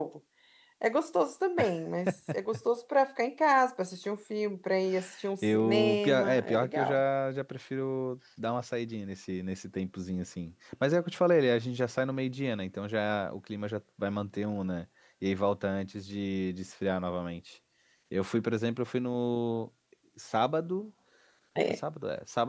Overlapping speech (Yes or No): Yes